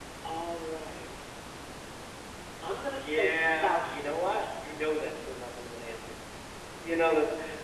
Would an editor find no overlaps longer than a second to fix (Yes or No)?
No